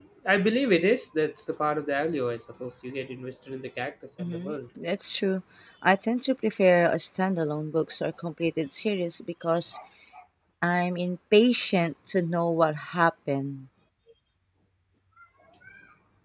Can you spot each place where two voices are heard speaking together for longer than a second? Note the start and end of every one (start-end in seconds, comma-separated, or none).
none